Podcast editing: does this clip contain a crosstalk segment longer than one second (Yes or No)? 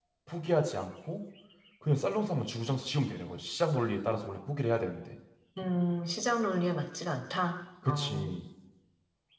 No